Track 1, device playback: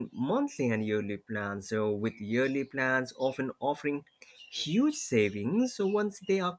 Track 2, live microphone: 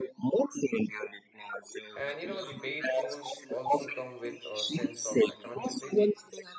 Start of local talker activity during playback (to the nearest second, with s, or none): 2 s